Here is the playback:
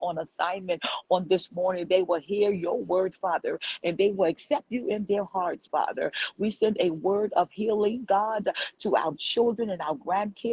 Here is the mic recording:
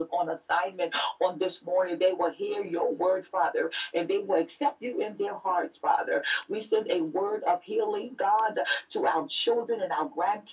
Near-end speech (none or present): none